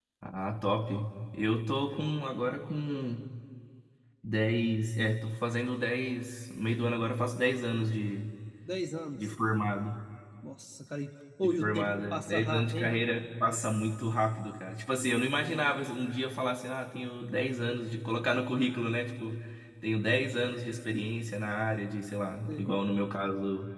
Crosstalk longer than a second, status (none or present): present